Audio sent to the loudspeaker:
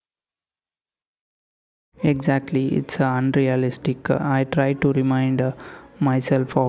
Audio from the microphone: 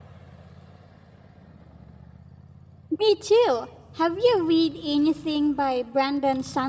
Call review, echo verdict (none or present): none